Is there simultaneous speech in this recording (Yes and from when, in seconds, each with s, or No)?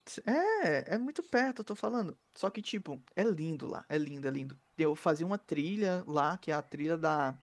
No